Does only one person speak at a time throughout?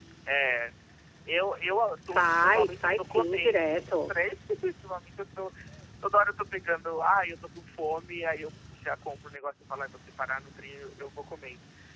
No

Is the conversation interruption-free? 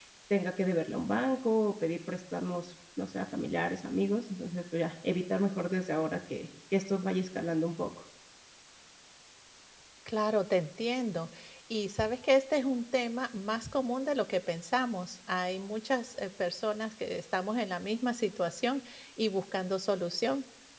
Yes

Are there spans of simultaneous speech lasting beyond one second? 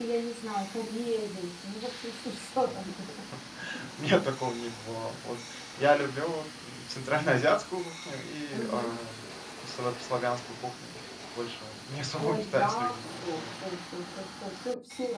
Yes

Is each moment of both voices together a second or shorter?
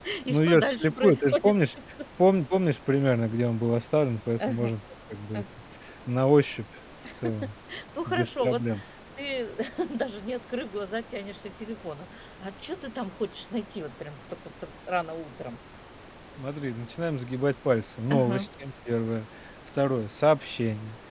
No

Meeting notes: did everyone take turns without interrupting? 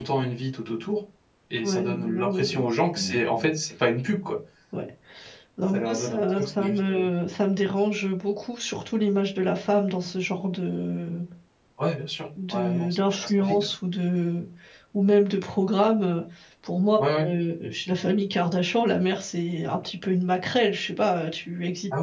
No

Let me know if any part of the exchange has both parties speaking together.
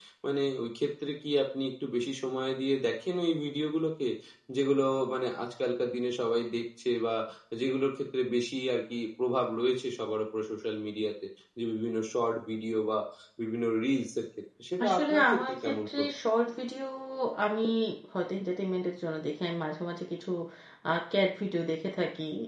Yes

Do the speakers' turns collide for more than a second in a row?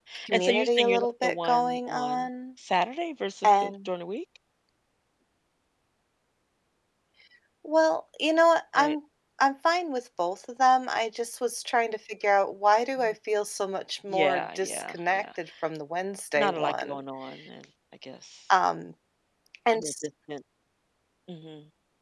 Yes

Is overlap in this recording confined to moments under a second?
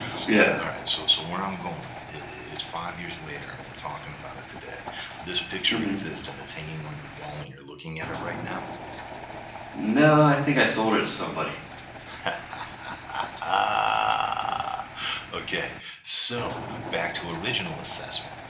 Yes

